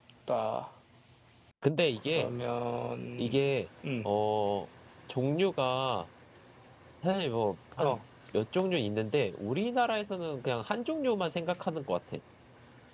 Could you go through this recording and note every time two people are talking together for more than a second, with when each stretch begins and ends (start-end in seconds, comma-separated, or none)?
none